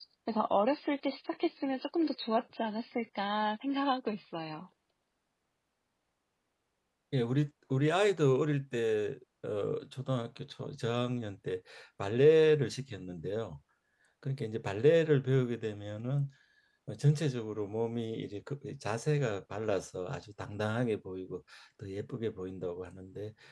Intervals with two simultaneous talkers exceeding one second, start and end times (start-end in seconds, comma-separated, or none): none